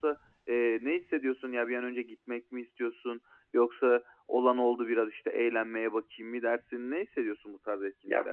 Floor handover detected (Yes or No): Yes